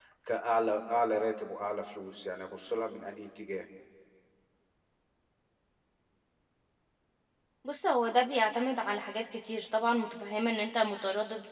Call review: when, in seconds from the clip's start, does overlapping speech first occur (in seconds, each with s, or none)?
none